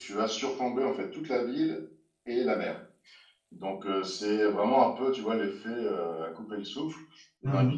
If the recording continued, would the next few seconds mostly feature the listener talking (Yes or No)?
No